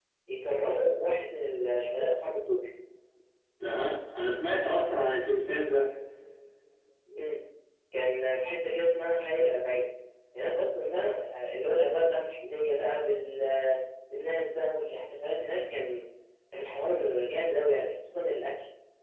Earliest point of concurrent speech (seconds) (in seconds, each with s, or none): none